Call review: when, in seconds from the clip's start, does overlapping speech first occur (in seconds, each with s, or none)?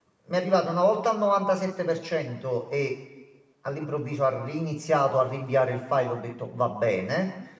none